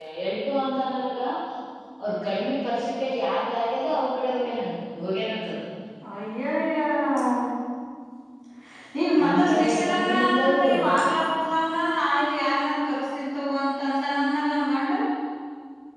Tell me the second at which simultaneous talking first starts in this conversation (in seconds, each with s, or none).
9.2 s